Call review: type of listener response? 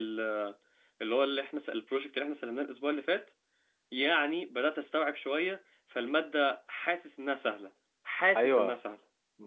taking over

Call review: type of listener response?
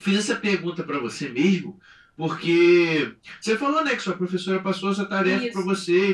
listening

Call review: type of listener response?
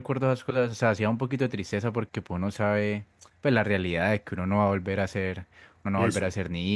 listening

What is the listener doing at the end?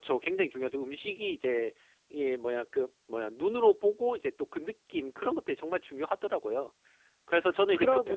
listening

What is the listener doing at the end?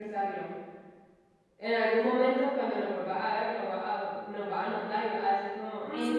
taking over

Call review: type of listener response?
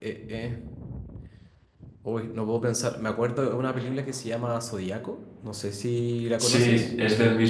taking over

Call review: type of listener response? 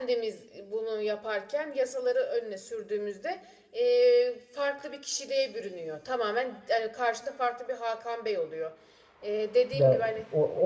taking over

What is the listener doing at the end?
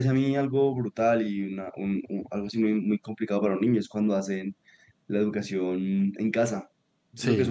listening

